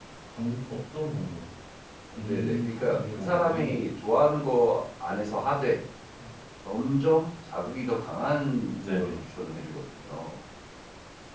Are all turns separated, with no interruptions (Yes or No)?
No